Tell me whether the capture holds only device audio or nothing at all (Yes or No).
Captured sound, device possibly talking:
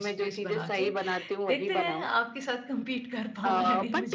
No